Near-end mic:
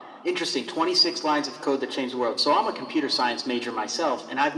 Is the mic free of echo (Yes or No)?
No